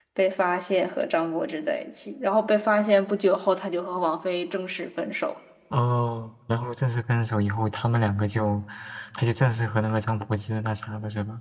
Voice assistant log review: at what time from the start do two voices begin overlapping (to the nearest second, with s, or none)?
none